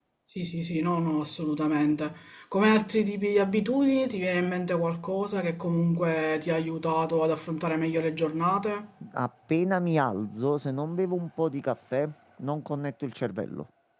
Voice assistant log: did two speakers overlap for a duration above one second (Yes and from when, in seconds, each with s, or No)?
No